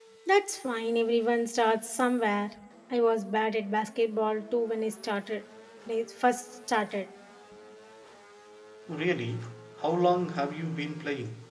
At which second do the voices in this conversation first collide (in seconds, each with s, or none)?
none